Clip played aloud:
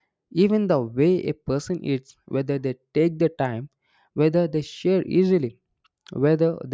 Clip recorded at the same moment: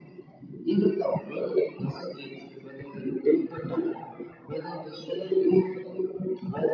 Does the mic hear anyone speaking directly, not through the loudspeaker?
No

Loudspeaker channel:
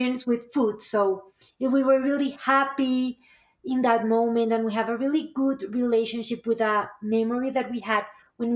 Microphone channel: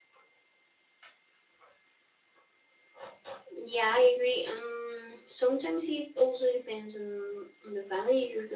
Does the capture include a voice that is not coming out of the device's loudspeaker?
Yes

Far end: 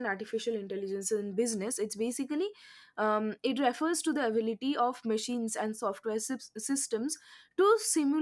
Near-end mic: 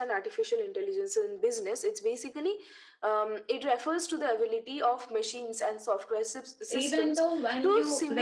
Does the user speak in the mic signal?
Yes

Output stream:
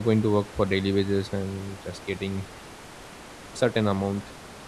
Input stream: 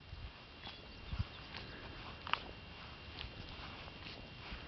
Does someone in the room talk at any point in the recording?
No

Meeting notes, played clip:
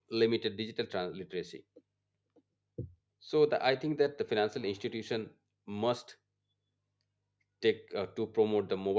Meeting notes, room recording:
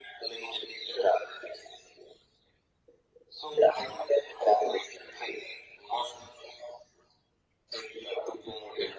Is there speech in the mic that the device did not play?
No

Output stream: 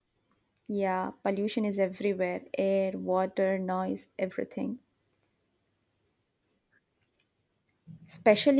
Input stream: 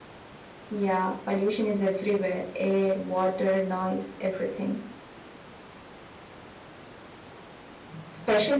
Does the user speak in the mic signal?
No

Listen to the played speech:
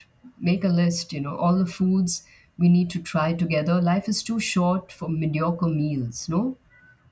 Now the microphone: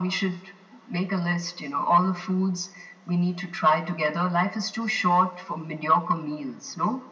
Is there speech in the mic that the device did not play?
No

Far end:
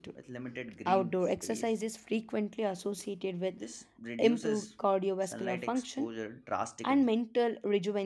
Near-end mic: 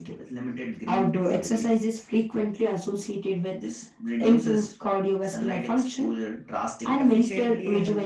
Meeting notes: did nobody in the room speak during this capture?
No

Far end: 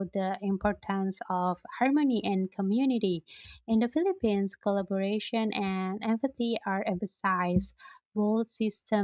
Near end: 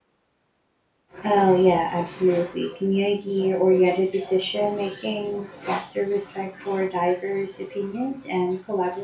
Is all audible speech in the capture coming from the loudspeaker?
No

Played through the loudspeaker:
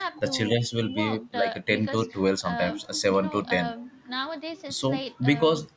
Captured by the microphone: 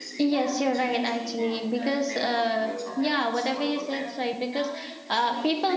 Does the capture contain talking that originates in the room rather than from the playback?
Yes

